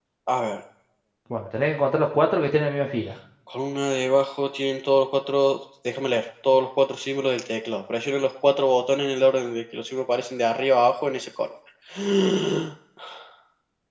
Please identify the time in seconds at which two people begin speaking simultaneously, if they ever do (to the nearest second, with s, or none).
none